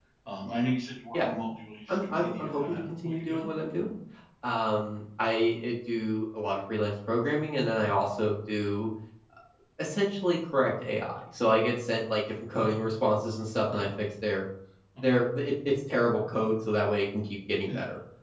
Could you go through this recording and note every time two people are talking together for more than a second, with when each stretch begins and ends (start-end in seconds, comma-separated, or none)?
1.9-3.5